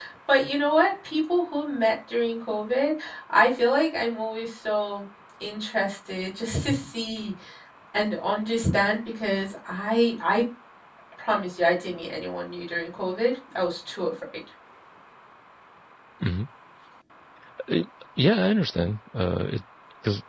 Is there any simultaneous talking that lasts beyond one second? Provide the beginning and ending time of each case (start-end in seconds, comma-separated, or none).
none